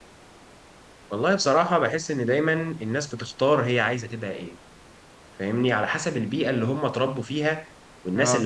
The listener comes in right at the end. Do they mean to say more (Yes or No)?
No